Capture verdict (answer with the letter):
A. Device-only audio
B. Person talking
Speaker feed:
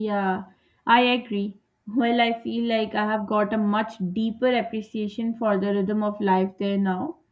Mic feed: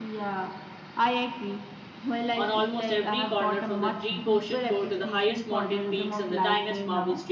B